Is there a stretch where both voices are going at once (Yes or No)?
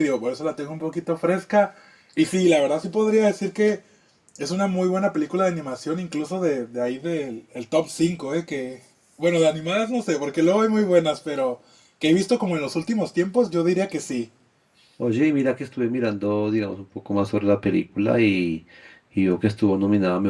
No